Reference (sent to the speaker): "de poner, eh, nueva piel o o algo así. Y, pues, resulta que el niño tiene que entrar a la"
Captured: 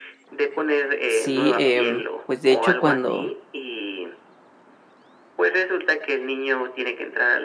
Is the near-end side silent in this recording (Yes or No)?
No